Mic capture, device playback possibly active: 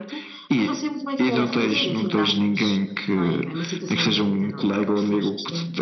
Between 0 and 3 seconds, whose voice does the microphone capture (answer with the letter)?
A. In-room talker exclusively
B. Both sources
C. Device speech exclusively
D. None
B